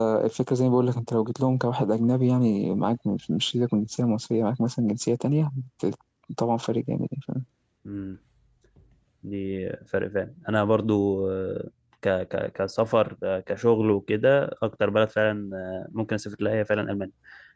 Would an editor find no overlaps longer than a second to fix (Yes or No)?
Yes